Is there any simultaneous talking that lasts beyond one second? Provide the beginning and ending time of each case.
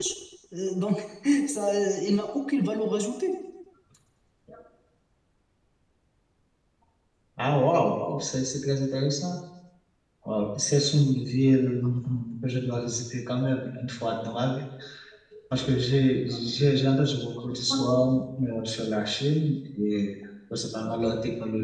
none

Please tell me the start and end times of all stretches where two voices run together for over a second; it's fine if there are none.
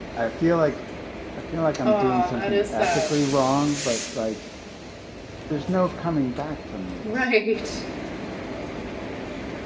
1.8-3.2

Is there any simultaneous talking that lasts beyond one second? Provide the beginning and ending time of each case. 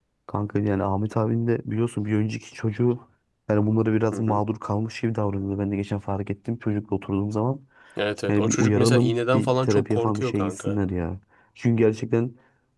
8.3-10.8

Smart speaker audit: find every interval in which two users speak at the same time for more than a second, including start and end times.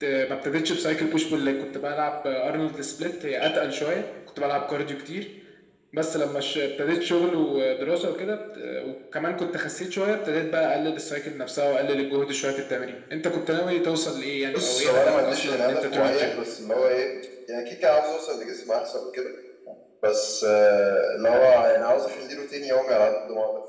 14.5-16.3

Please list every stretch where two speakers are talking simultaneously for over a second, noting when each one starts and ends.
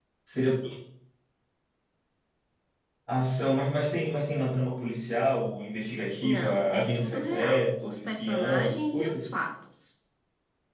6.2-9.2

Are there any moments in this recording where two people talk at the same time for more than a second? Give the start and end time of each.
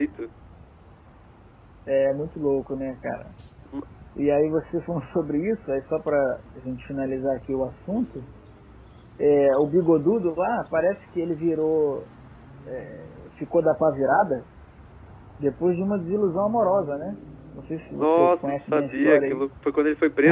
17.9-19.4

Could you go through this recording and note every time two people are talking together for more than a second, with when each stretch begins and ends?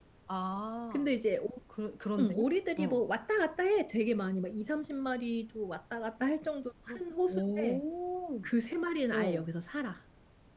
none

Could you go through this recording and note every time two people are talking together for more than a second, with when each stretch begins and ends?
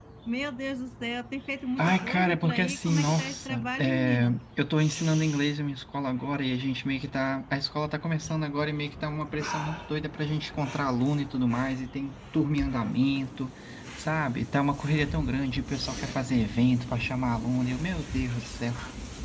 1.8-4.4

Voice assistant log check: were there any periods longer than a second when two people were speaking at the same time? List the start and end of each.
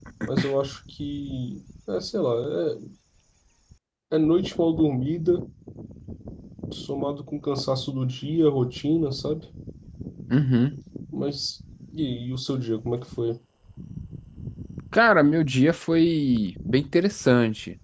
none

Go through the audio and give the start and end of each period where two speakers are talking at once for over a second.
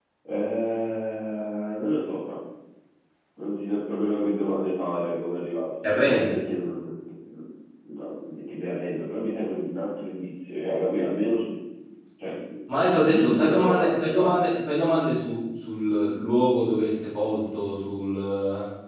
12.9-14.3

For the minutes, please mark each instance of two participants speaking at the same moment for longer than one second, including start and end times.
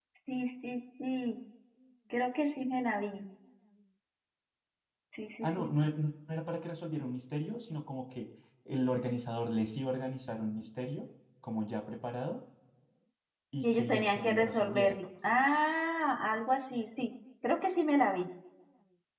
13.6-15.0

